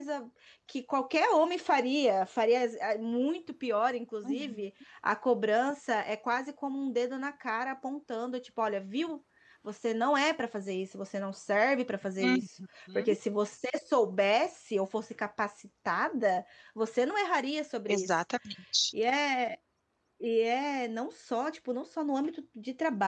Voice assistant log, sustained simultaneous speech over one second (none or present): none